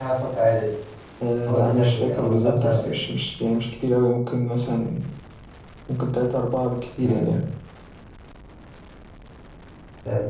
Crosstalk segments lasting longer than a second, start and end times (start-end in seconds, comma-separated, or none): 1.5-2.9